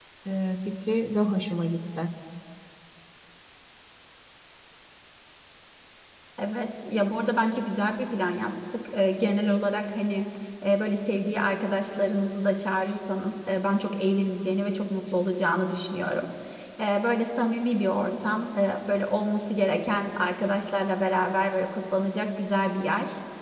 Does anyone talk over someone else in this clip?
No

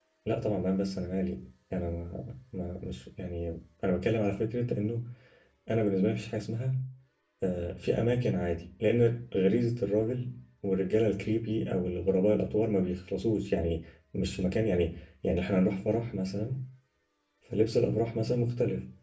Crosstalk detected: No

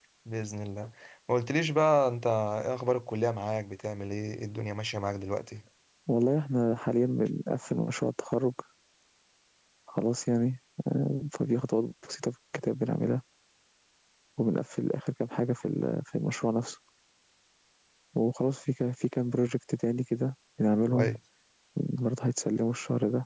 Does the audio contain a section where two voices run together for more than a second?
No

